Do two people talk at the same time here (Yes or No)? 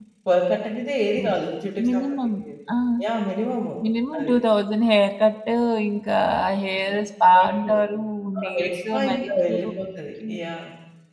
Yes